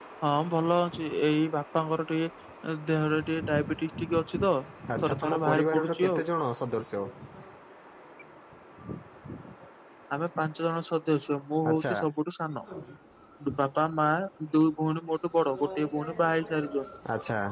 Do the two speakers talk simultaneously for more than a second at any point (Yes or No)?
Yes